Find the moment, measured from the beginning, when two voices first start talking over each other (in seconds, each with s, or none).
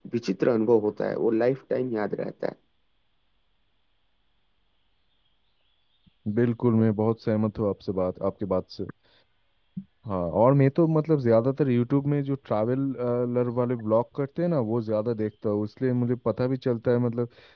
none